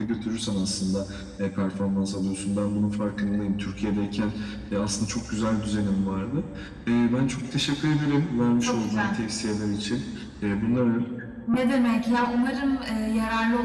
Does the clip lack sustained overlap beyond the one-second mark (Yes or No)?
Yes